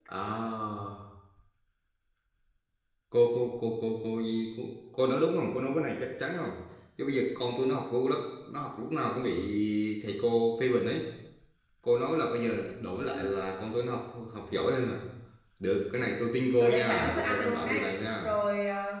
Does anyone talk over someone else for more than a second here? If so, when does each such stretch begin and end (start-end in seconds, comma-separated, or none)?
16.6-17.8